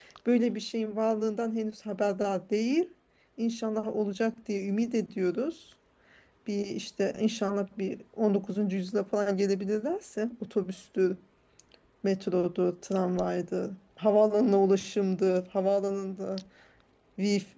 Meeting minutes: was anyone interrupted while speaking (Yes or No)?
No